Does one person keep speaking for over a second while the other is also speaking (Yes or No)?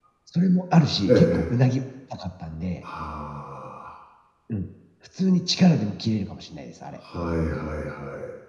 No